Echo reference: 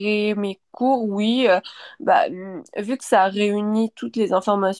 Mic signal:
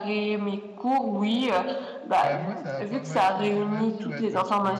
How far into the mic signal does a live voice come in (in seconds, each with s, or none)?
2.2 s